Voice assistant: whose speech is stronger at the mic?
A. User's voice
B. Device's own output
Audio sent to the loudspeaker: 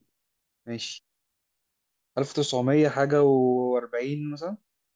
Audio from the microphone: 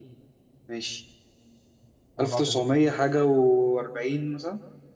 B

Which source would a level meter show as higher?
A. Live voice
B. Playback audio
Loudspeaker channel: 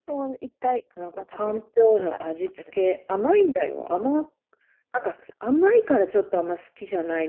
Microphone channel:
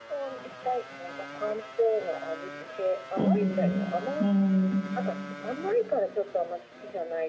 A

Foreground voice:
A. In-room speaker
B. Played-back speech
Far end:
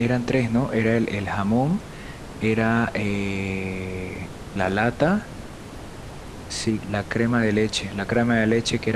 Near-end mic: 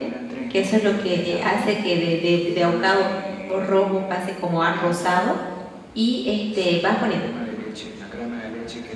A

